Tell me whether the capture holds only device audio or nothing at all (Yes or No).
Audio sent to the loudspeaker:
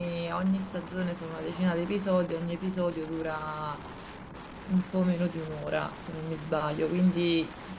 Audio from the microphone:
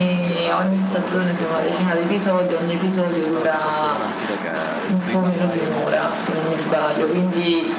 No